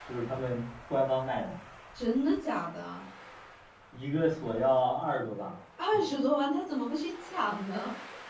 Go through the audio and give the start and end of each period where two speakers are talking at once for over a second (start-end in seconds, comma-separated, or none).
none